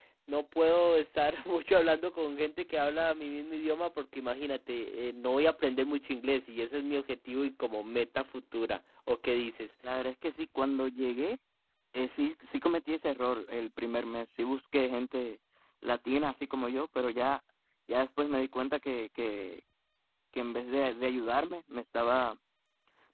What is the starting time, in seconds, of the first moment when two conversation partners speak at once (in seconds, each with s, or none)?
none